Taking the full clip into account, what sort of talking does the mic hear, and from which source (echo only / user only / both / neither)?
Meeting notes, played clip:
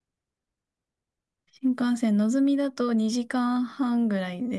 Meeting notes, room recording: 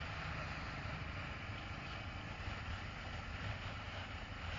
neither